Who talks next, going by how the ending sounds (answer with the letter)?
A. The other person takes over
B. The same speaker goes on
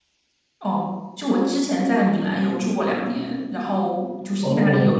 B